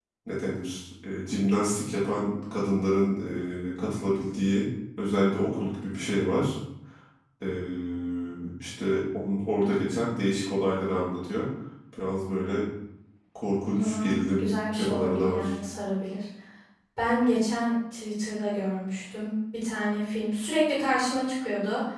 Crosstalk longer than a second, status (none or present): present